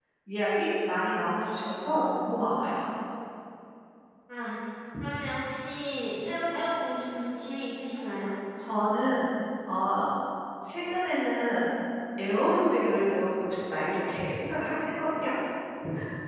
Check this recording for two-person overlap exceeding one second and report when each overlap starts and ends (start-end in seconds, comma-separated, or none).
none